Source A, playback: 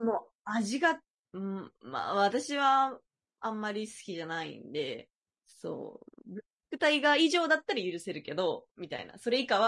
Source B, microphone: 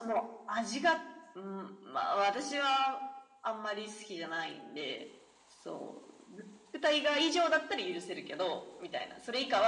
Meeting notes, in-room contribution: none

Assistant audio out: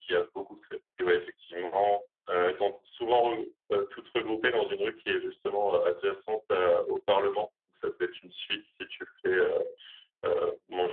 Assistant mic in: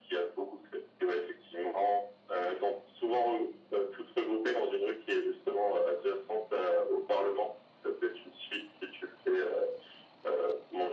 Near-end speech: none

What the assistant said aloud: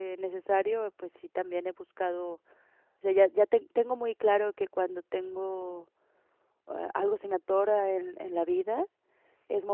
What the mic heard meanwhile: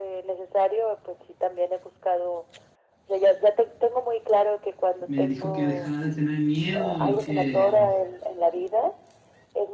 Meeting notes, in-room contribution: present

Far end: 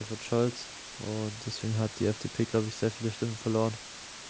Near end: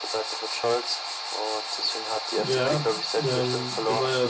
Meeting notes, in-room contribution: present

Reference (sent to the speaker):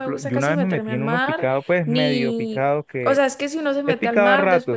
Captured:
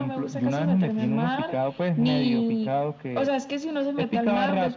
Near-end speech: none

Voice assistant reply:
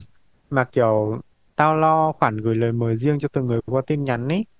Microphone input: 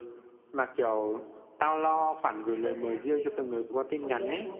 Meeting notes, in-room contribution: present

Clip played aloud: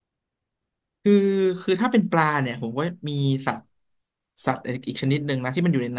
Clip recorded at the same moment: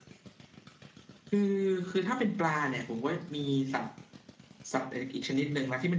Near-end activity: none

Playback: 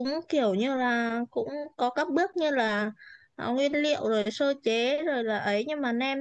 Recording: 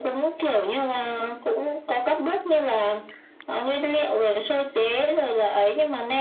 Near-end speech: none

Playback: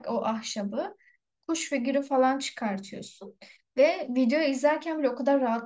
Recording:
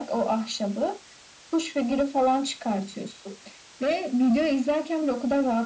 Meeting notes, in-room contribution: none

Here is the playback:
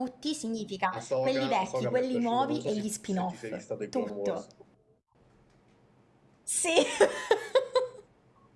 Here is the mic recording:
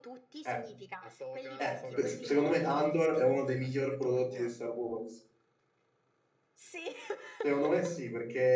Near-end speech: present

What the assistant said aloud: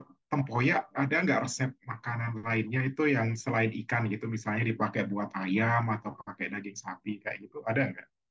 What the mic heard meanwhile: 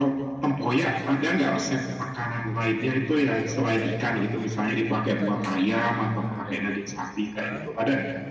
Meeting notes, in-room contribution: present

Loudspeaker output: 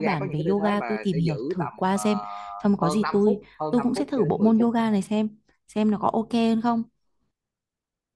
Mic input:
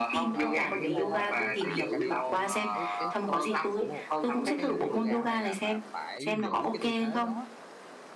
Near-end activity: present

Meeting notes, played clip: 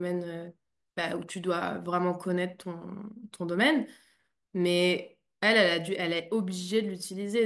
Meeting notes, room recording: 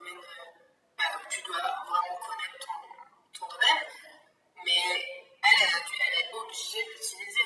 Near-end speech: none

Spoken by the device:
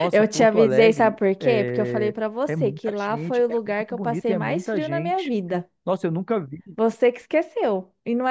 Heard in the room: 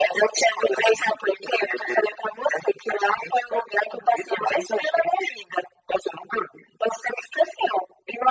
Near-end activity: none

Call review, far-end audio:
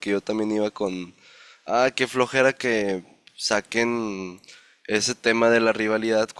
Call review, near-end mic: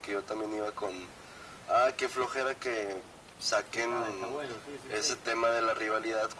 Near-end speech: present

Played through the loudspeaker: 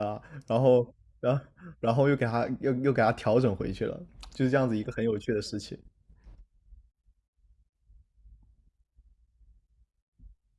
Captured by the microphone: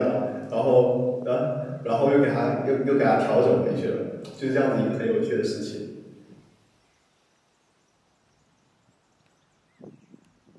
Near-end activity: none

